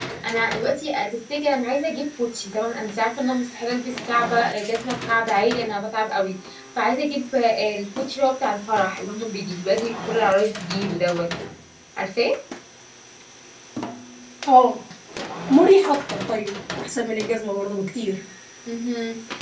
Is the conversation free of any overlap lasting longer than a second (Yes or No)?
Yes